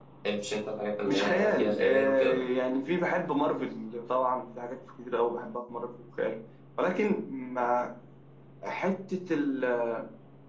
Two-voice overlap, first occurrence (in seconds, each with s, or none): 1.0 s